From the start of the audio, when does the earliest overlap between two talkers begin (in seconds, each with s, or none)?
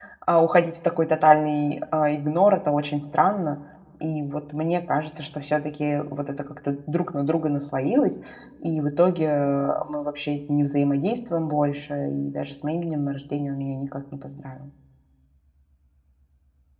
none